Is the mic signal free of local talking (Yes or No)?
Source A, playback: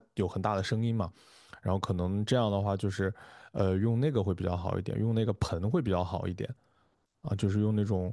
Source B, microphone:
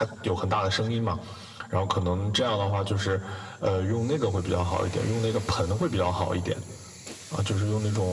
Yes